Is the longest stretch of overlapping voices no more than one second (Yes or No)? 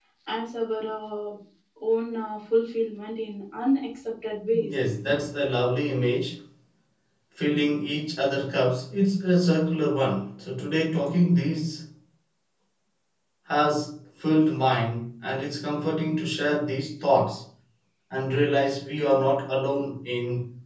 Yes